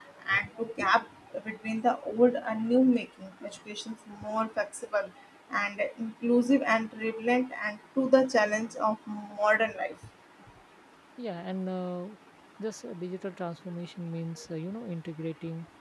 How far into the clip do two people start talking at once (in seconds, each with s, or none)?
none